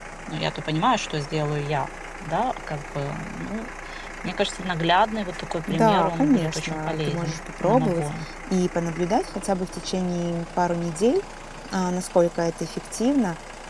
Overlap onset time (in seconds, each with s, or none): 5.7 s